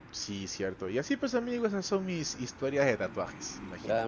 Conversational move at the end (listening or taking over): taking over